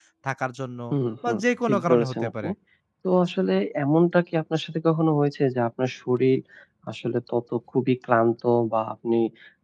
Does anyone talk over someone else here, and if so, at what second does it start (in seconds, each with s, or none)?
1.3 s